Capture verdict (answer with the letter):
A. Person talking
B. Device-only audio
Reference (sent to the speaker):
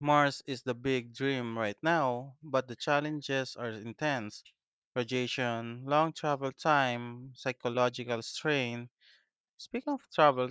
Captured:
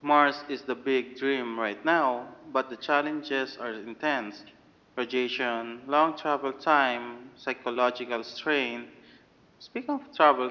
B